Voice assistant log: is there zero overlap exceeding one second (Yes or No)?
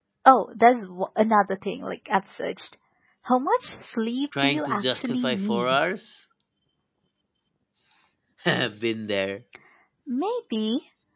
No